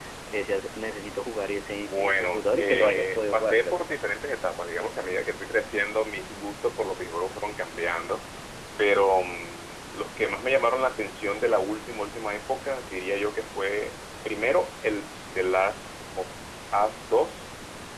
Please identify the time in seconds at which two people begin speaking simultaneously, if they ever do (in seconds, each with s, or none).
1.8 s